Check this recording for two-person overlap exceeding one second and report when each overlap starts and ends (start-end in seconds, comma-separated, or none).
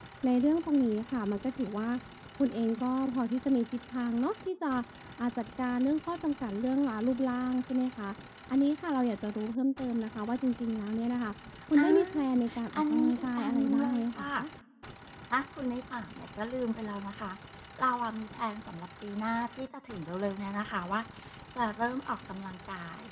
12.8-14.3